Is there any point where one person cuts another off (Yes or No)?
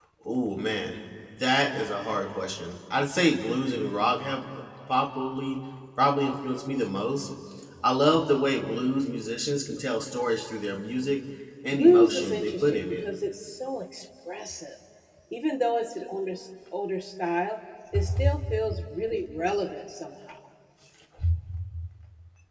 Yes